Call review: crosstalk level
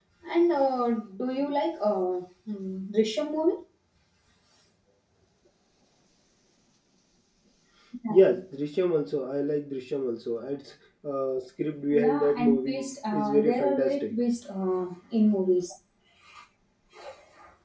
present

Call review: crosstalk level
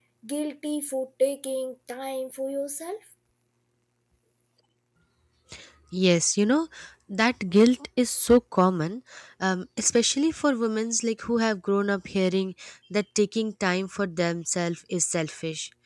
none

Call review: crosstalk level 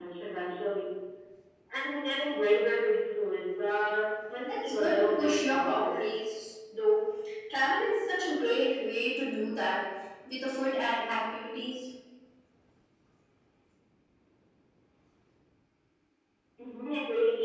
present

